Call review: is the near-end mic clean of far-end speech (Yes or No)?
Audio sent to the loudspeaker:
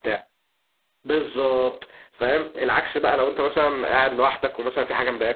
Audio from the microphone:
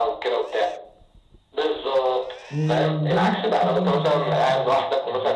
No